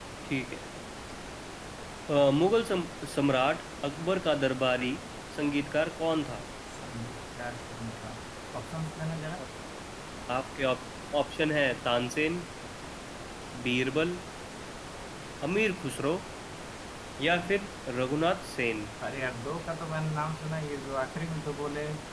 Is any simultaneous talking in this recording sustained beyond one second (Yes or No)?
No